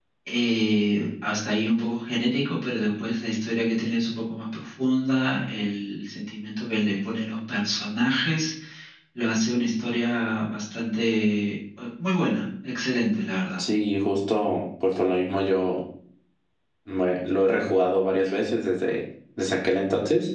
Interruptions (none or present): none